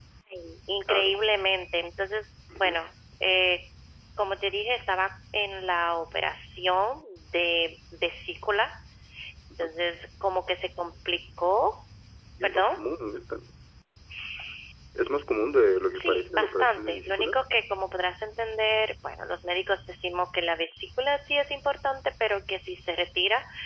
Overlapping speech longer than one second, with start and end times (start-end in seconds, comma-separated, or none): 15.9-17.3